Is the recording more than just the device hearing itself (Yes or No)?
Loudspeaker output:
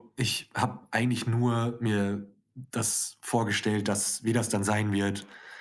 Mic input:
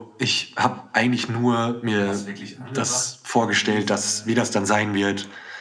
Yes